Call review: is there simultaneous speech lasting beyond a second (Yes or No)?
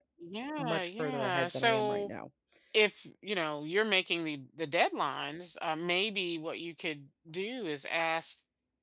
Yes